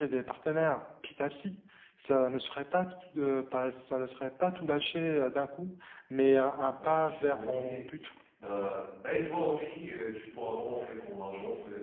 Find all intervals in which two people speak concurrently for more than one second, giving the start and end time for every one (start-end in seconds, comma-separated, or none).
6.6-7.8